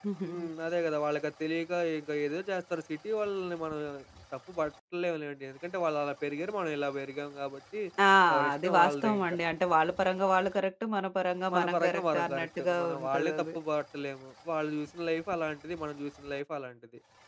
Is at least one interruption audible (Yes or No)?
Yes